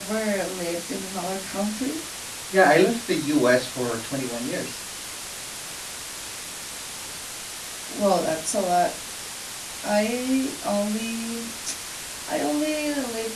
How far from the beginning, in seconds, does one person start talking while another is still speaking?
none

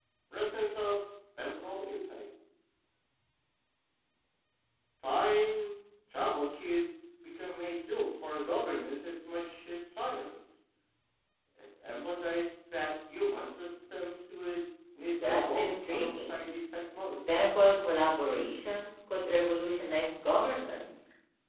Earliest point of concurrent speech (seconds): 15.2 s

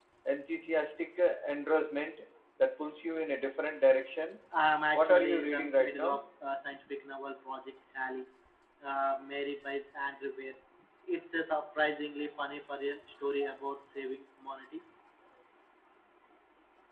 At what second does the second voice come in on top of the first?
4.9 s

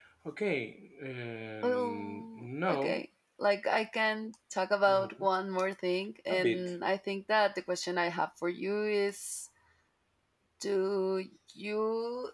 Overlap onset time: 1.6 s

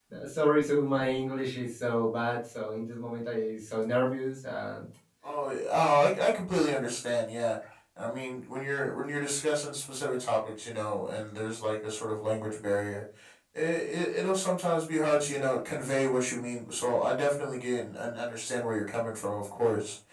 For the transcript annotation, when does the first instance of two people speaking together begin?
none

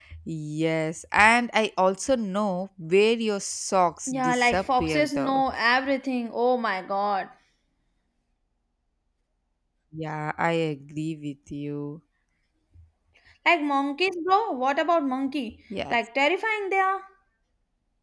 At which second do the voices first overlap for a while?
4.1 s

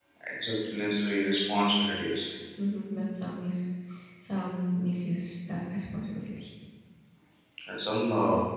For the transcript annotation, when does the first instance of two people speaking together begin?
none

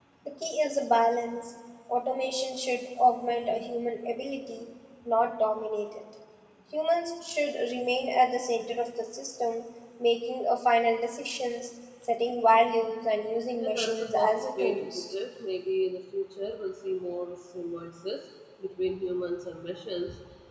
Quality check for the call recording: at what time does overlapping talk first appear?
13.6 s

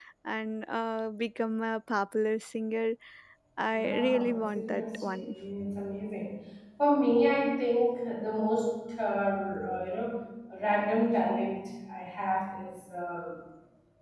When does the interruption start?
3.7 s

